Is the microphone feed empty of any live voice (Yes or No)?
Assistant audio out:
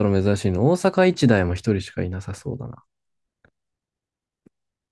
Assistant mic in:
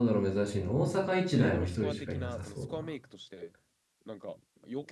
No